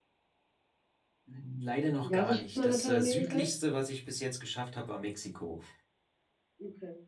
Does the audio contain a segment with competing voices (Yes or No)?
Yes